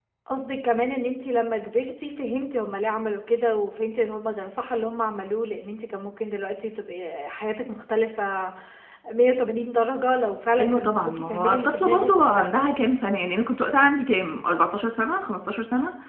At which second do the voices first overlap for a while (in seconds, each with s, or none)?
10.6 s